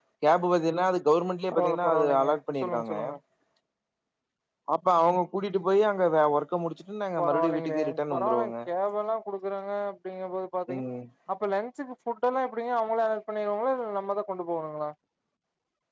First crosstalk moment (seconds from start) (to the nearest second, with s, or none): 2 s